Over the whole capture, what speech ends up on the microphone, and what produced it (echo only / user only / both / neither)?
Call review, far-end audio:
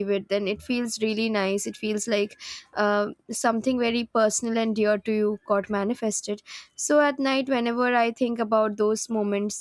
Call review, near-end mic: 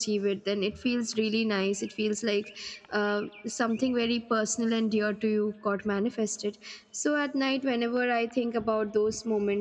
echo only